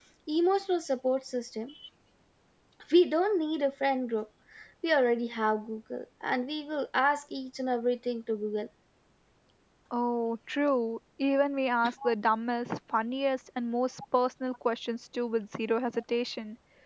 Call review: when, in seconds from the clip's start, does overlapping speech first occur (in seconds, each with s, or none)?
none